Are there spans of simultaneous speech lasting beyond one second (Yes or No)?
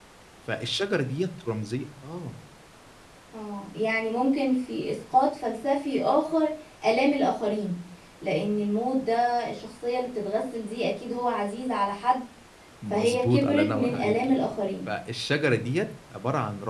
Yes